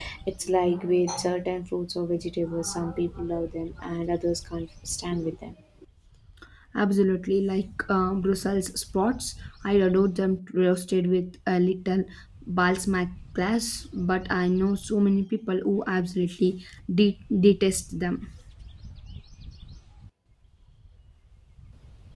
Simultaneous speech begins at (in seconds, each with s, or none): none